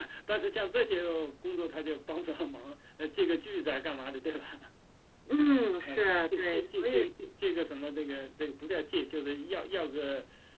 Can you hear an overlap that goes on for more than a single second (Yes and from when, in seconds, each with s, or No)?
Yes, from 5.8 s